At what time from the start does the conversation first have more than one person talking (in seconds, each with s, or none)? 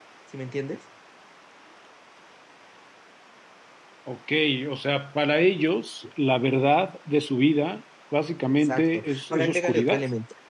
8.6 s